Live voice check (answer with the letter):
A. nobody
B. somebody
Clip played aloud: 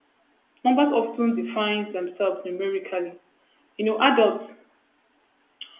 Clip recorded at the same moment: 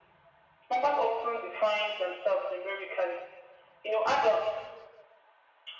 A